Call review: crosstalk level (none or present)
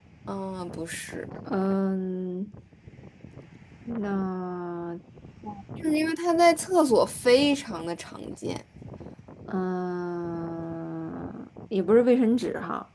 none